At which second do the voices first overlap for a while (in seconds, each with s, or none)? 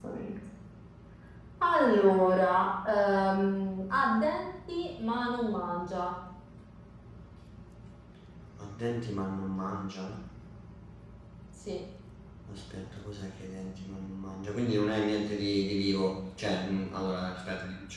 none